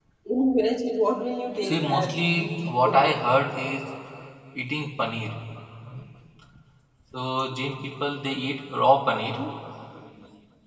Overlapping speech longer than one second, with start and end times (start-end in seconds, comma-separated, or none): 1.6-3.1